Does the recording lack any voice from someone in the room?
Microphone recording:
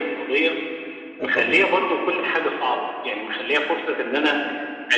No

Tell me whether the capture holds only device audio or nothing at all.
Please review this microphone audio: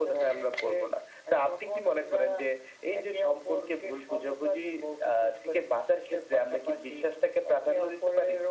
Yes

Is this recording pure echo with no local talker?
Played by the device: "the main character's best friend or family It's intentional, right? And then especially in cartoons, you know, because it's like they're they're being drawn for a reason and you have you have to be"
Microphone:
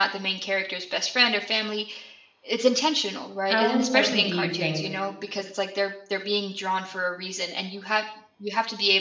No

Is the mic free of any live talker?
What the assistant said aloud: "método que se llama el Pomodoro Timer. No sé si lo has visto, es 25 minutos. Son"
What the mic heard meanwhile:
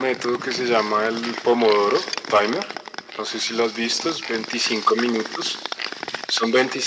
Yes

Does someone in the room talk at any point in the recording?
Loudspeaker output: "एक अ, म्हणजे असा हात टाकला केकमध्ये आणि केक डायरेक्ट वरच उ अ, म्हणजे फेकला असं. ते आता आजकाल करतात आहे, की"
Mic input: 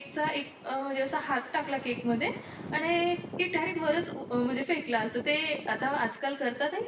No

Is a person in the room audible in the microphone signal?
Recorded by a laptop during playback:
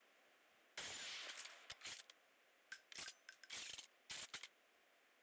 No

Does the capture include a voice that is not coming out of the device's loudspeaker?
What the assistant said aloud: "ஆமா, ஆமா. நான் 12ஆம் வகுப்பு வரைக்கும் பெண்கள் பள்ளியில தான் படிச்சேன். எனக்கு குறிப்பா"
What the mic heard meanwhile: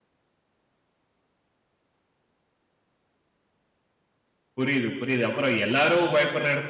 Yes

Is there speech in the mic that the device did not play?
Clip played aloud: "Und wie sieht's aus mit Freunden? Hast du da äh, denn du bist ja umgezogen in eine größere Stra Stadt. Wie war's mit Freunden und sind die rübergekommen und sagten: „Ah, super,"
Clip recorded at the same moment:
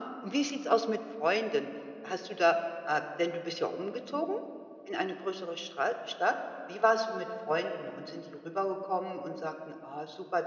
No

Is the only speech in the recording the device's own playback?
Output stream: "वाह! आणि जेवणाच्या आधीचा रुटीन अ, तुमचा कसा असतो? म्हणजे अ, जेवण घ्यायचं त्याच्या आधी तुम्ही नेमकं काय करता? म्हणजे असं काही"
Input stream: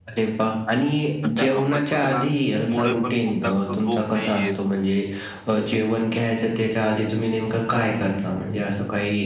No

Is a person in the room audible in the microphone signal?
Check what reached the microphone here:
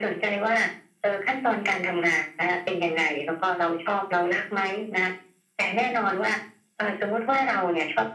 No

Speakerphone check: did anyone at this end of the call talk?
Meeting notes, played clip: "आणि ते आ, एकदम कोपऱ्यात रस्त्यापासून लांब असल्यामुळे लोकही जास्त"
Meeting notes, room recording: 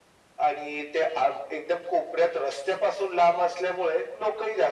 No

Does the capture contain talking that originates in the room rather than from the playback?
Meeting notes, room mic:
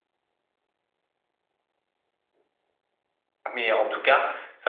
Yes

